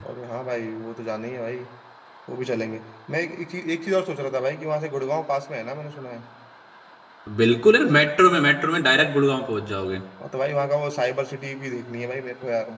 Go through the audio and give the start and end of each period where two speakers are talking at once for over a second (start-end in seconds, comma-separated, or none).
none